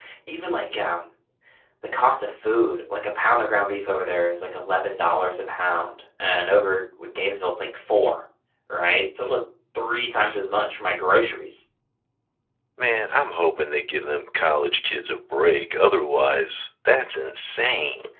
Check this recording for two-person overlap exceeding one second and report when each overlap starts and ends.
none

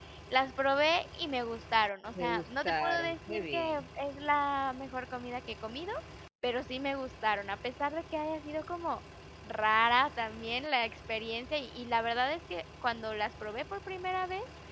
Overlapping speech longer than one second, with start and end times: 2.2-3.6

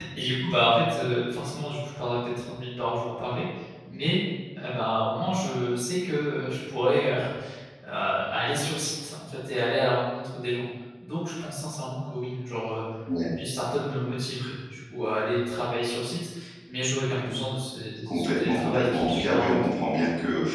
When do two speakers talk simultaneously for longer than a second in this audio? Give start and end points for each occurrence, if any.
18.1-19.7

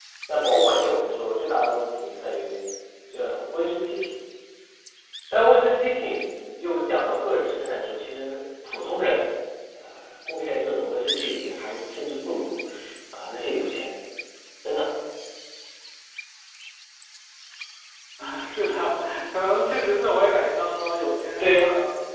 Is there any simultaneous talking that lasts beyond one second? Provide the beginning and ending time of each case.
none

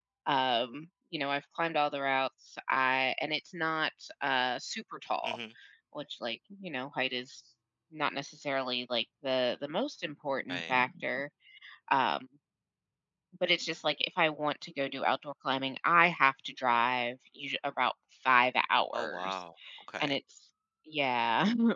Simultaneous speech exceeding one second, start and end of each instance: none

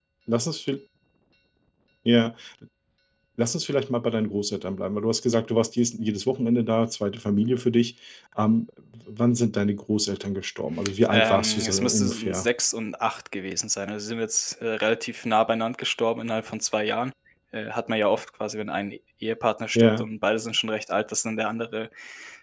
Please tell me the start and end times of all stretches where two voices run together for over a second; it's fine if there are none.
11.1-12.5

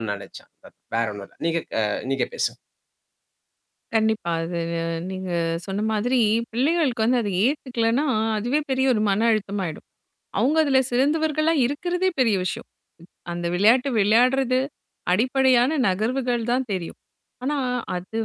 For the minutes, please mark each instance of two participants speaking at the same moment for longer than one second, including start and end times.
none

